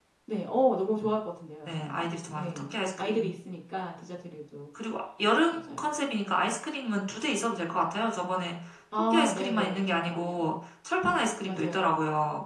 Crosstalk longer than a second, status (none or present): present